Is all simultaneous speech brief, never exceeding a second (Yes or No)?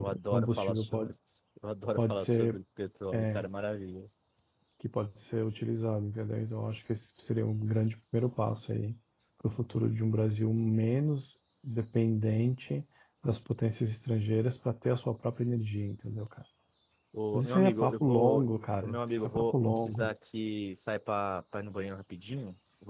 No